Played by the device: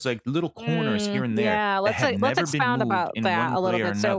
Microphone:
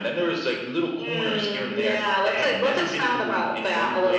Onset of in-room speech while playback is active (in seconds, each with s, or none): none